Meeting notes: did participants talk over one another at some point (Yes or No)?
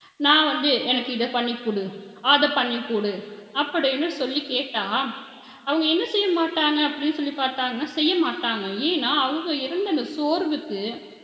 No